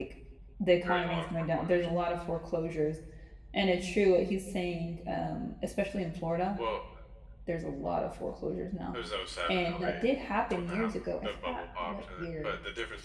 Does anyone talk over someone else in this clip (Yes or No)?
Yes